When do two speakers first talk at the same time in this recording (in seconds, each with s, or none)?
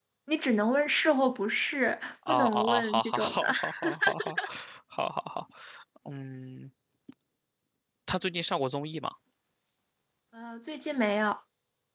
2.3 s